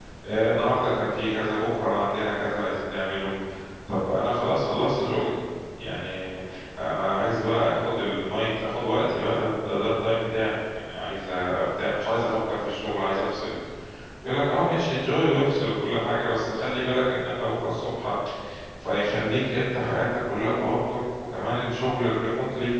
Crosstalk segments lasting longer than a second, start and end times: none

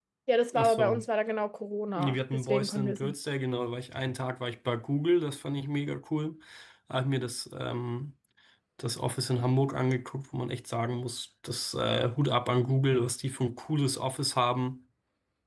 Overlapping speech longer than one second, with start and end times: 1.9-3.1

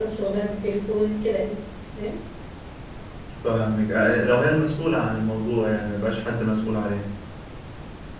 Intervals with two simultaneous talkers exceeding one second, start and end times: none

